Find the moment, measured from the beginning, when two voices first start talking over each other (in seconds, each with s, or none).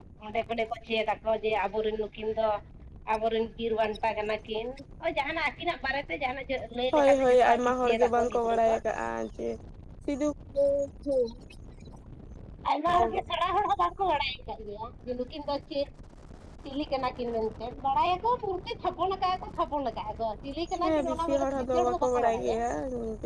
6.9 s